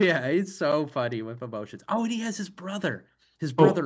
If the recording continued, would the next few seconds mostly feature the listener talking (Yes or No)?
Yes